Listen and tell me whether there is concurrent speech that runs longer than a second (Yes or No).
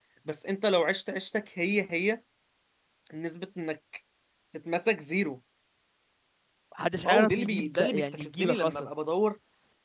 Yes